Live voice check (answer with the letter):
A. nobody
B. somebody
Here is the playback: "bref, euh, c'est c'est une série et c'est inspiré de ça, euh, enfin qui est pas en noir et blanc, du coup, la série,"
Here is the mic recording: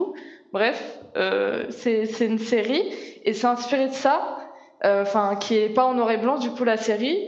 A